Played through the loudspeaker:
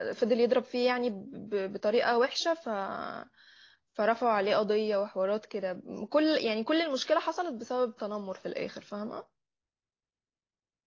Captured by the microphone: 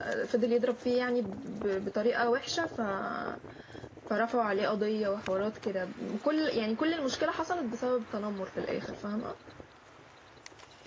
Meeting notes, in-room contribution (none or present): none